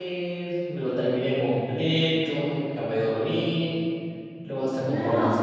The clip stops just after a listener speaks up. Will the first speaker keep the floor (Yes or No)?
Yes